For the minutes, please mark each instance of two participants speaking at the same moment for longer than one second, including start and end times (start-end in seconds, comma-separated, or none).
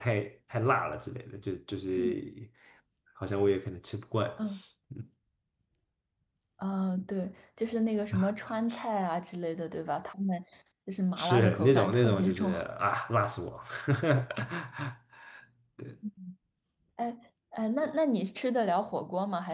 11.2-12.5